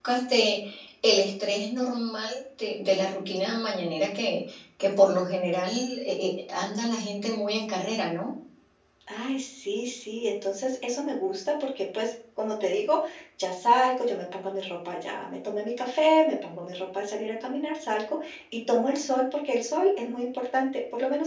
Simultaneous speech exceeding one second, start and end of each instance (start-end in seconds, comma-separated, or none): none